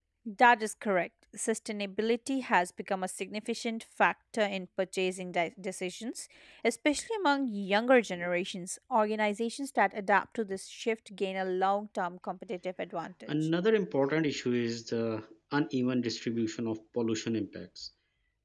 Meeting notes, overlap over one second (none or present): none